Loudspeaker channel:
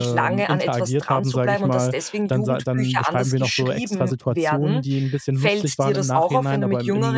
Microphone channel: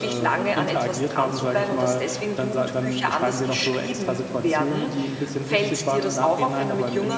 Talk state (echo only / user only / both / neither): echo only